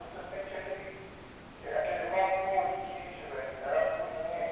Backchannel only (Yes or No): No